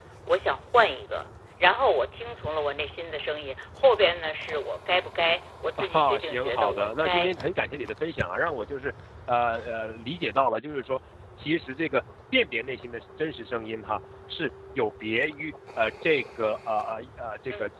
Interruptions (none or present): present